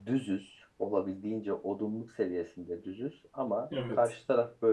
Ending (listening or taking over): listening